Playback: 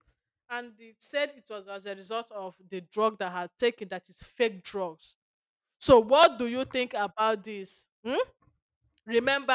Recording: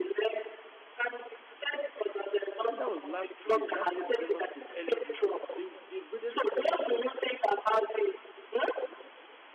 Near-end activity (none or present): present